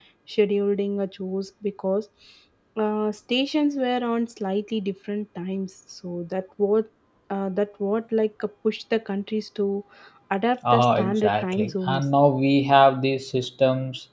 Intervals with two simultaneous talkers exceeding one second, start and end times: 10.7-12.1

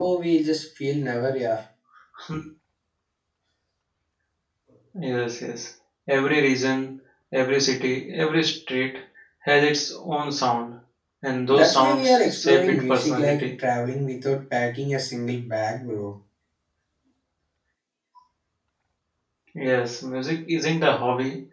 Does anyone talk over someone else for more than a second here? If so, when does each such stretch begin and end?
11.5-13.5

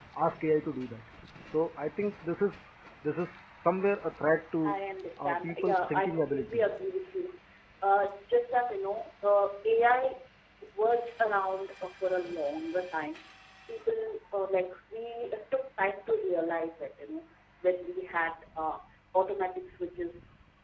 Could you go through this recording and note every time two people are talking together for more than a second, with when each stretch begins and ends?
5.2-6.6

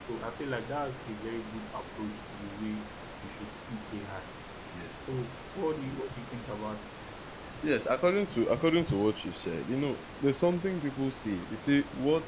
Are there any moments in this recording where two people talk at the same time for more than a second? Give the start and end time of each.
none

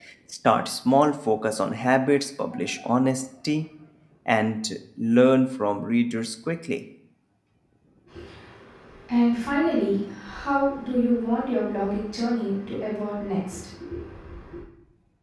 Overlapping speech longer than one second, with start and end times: none

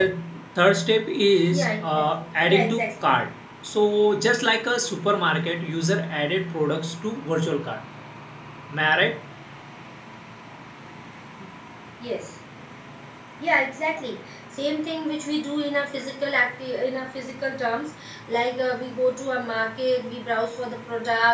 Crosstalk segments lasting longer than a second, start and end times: 1.5-3.1

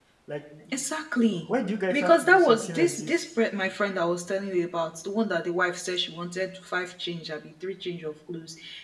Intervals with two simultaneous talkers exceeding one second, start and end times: 1.9-3.1

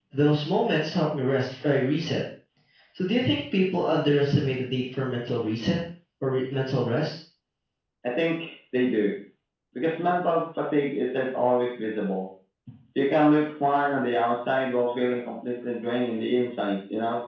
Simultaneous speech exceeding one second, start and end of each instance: none

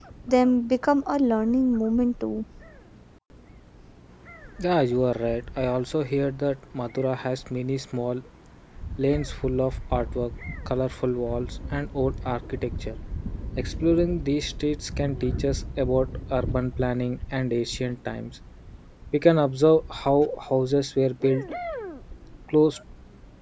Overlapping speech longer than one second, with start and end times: none

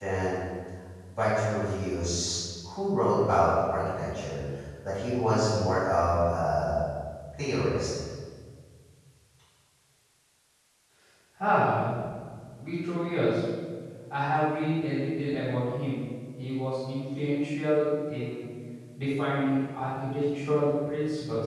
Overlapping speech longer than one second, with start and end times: none

